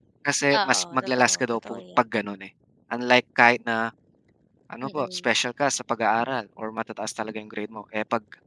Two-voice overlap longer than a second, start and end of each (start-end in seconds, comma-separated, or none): 0.6-2.0